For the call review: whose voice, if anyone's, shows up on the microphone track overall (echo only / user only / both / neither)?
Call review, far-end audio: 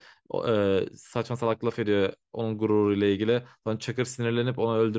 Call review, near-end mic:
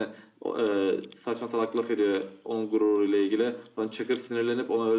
echo only